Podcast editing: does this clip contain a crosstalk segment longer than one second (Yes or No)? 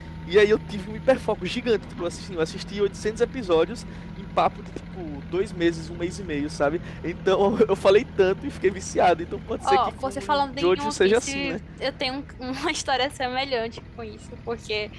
Yes